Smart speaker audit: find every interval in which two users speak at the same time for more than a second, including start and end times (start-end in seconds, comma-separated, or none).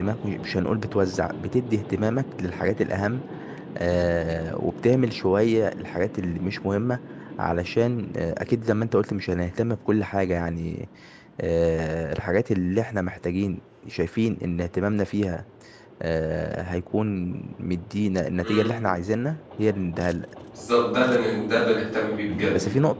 none